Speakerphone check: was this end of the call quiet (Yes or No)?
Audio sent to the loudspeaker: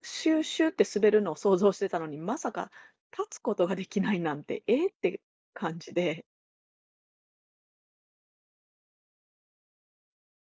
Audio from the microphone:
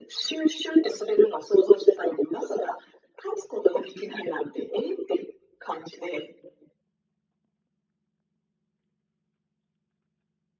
Yes